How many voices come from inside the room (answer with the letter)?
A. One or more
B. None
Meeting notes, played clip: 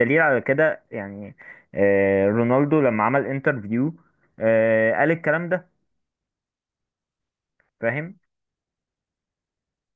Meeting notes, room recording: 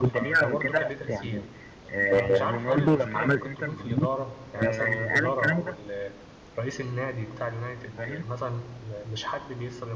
A